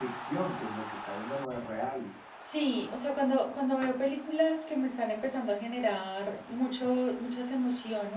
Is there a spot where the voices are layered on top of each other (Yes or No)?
No